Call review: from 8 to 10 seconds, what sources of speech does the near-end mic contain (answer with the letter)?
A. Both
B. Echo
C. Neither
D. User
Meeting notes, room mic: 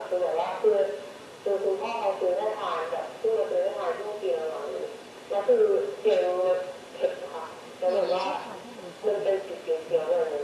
A